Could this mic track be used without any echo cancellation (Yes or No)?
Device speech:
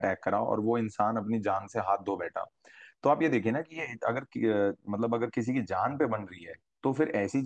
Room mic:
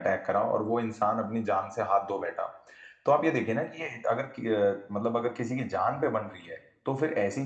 No